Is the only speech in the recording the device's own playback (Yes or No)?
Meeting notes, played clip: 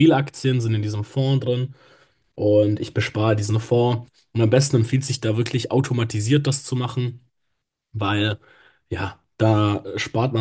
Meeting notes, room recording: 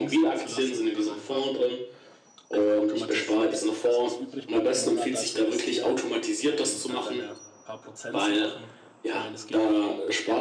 No